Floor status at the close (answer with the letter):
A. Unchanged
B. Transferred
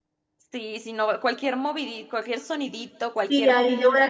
B